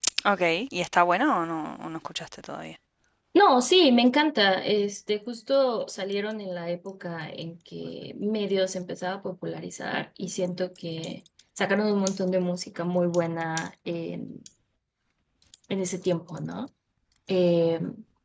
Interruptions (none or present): none